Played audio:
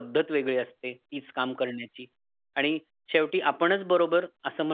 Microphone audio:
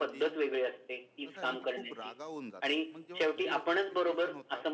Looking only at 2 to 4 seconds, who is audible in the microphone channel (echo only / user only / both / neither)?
both